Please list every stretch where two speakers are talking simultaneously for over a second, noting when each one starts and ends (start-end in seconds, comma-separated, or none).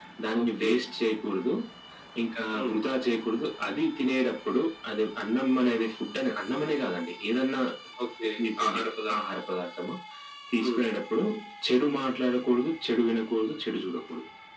none